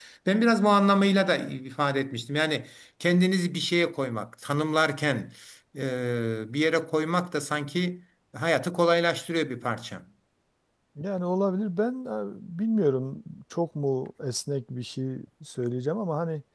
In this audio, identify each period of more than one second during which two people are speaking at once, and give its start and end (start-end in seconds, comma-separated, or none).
none